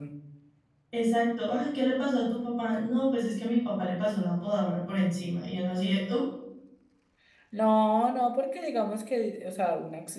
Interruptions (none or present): none